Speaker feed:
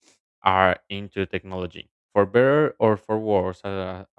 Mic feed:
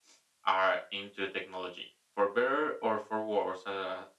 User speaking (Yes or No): No